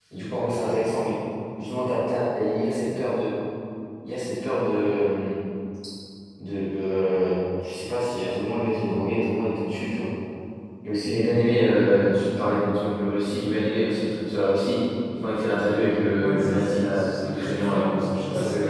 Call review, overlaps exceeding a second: present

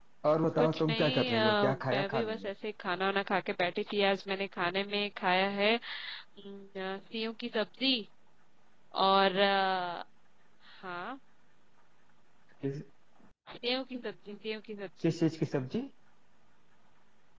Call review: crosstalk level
present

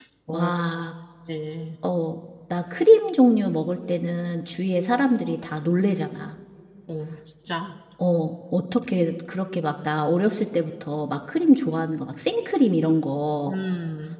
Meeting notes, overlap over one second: none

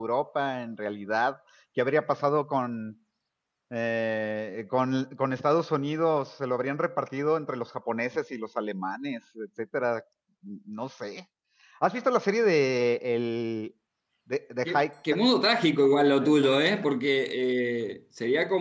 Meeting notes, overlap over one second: none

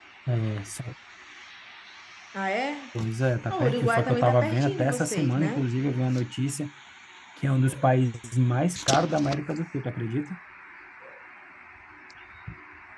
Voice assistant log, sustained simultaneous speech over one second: present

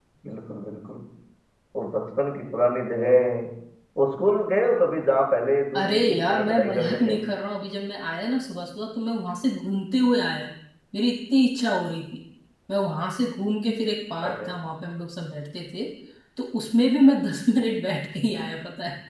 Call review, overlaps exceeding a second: present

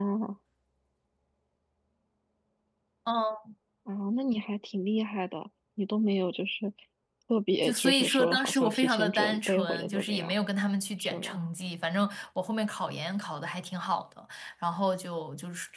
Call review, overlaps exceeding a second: present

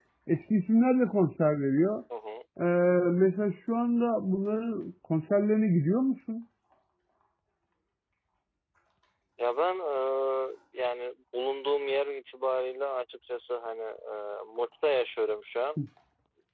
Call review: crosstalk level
none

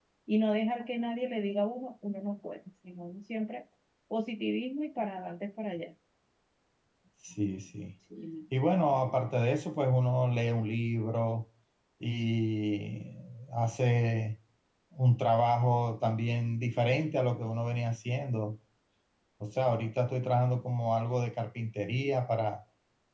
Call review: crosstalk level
none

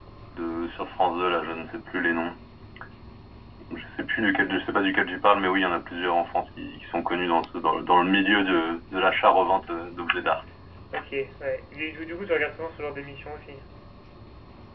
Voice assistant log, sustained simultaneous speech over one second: none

